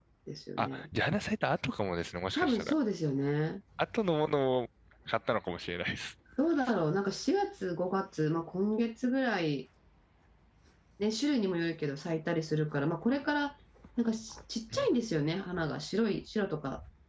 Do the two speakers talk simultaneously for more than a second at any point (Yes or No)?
No